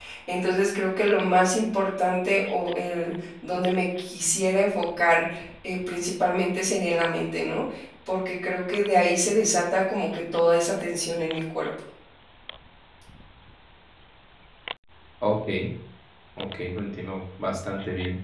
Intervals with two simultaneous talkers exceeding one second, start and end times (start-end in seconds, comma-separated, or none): none